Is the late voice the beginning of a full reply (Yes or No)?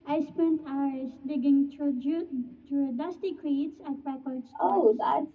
Yes